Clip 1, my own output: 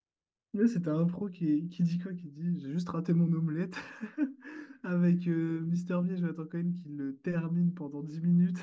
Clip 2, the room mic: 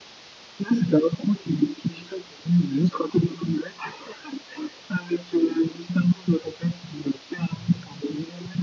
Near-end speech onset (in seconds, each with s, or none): none